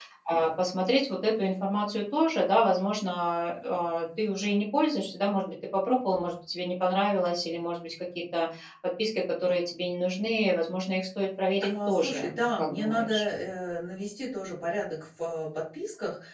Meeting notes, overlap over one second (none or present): present